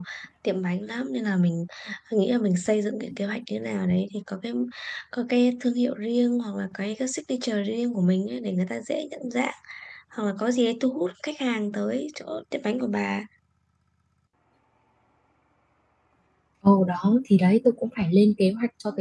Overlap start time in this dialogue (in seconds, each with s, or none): none